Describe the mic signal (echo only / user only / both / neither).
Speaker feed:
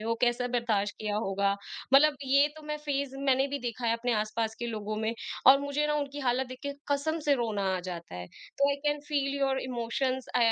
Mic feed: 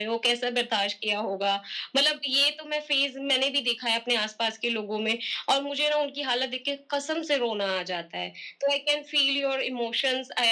echo only